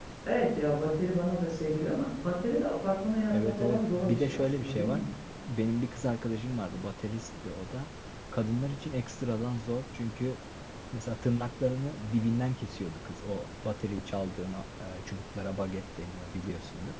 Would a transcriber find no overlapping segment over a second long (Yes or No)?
No